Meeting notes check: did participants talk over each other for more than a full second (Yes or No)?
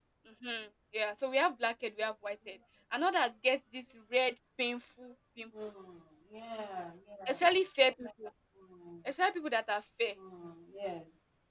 No